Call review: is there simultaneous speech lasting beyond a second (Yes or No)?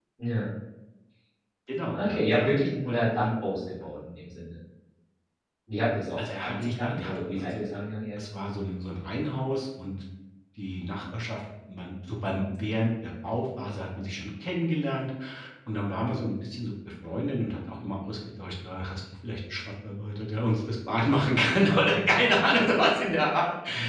Yes